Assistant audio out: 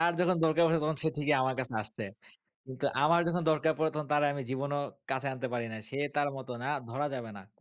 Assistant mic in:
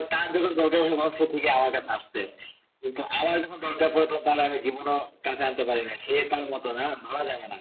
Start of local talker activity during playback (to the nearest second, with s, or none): none